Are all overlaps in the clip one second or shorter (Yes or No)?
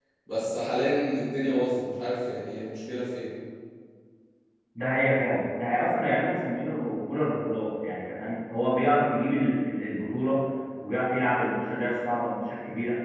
Yes